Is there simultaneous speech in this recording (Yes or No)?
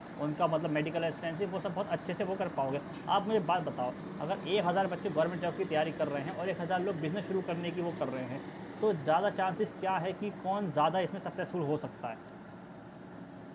No